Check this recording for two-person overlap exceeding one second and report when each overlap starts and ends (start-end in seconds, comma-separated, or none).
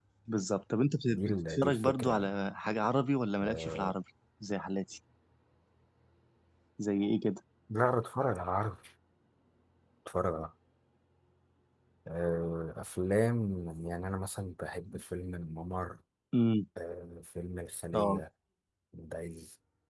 1.1-2.3